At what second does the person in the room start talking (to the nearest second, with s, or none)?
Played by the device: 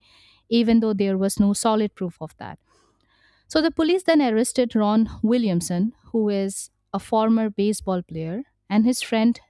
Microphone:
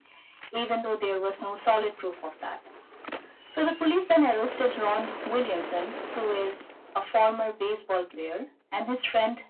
none